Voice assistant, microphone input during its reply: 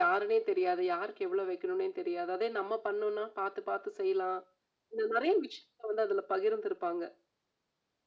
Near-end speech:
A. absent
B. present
A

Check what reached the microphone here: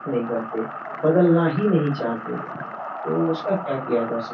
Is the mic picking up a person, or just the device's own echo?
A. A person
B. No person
A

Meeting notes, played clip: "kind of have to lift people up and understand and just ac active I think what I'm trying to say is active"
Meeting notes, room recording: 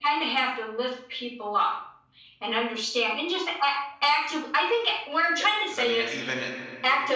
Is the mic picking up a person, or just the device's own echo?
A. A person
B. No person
A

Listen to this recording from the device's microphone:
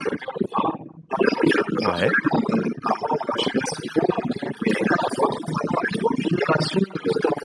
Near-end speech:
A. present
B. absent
A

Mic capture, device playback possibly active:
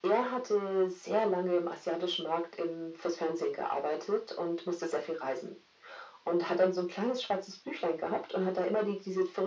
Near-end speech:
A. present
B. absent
B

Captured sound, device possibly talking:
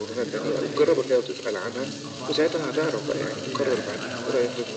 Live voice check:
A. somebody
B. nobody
A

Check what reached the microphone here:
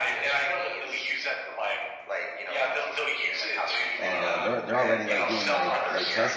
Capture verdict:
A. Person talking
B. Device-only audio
A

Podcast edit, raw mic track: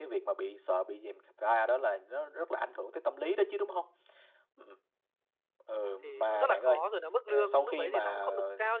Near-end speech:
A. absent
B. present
B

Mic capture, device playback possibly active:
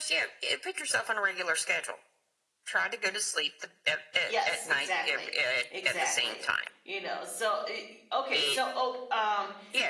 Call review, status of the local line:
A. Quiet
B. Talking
B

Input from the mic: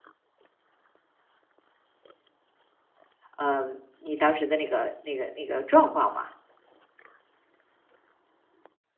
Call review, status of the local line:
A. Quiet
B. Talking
B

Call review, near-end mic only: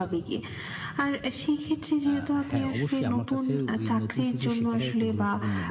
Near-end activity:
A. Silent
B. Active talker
B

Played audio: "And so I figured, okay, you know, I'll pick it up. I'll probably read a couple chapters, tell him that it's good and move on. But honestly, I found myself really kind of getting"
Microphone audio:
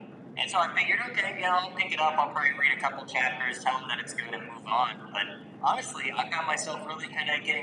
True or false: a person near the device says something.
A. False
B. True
A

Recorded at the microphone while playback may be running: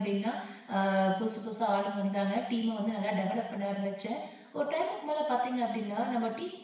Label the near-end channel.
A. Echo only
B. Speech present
A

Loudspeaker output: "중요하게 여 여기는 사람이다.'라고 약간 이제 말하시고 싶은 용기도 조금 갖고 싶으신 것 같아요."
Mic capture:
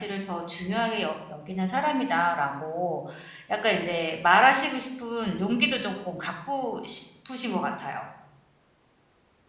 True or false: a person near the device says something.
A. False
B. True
A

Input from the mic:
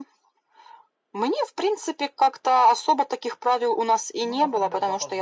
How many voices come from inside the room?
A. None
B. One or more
B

